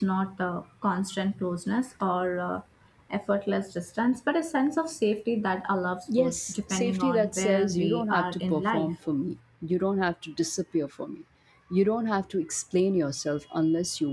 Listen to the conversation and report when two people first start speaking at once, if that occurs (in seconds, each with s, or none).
6.1 s